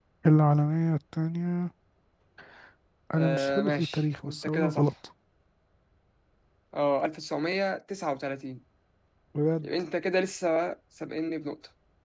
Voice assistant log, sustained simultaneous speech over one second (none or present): present